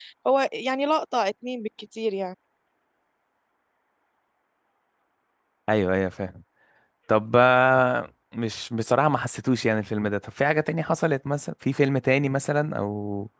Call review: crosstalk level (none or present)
none